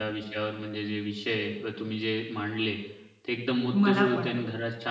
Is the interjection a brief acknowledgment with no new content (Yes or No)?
Yes